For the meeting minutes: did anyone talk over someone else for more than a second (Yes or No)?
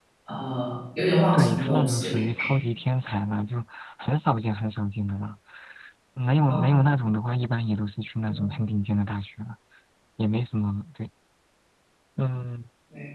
Yes